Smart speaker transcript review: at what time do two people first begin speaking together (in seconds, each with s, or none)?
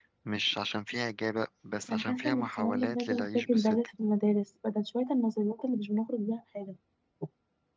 1.9 s